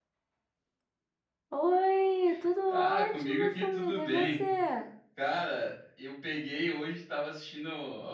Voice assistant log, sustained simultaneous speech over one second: present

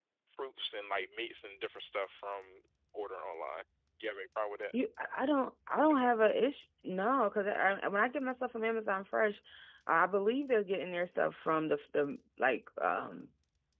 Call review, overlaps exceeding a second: none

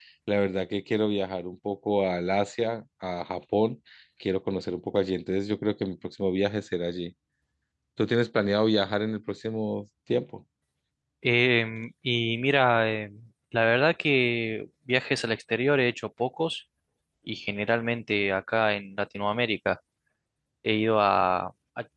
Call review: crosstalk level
none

